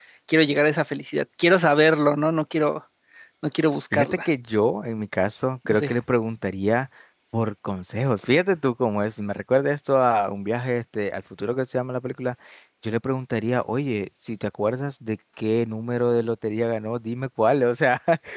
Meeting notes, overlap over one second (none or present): none